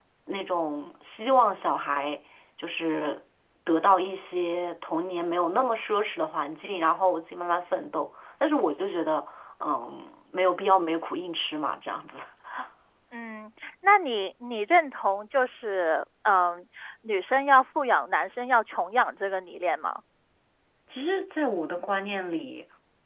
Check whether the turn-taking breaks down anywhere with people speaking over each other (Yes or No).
No